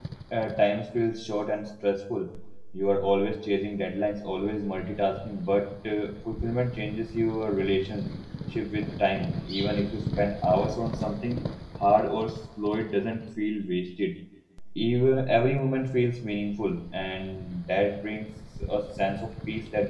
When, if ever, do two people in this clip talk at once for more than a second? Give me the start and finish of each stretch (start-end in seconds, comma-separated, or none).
none